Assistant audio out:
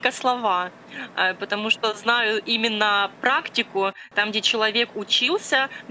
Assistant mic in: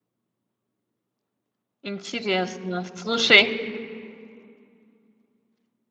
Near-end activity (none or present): present